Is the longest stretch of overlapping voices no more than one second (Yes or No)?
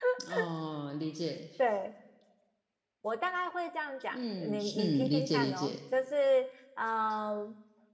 No